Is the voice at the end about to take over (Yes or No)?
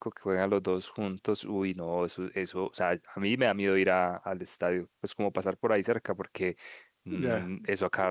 No